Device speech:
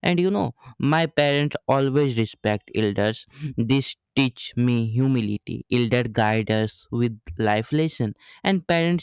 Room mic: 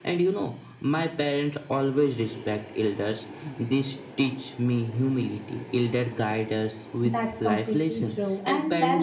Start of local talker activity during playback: 7.0 s

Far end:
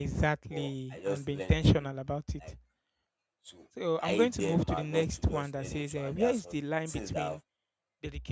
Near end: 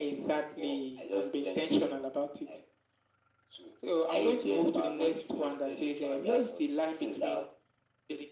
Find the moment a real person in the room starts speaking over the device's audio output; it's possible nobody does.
none

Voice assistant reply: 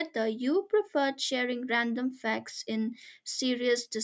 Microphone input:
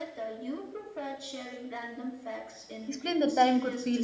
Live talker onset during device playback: 2.8 s

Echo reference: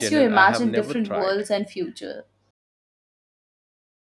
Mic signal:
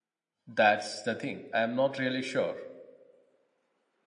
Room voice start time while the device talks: 0.4 s

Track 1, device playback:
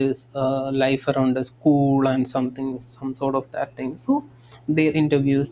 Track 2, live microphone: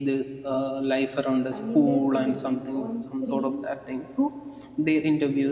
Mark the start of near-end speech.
1.5 s

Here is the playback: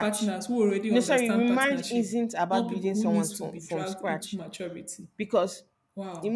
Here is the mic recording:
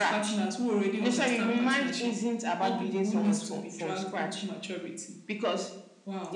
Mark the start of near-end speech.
none

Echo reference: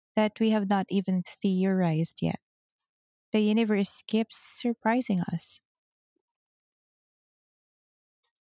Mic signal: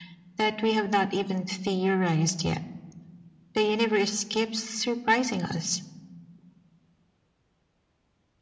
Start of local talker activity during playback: none

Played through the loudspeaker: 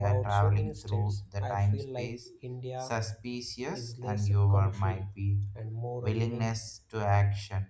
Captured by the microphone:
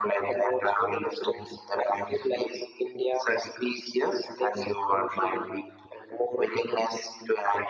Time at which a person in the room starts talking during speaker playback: none

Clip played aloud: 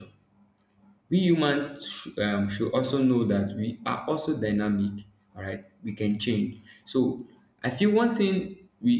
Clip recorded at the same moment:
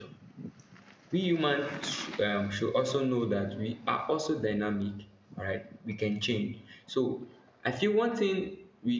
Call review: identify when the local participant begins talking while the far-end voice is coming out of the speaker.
none

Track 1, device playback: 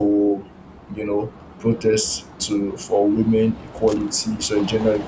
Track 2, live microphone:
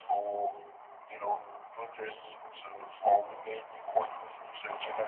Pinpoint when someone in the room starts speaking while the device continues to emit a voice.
none

